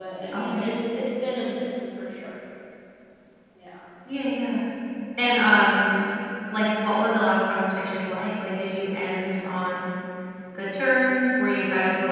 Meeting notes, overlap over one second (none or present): none